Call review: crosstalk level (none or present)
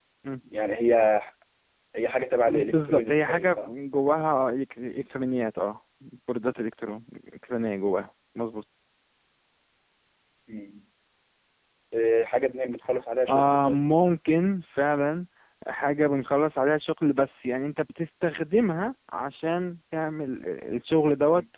present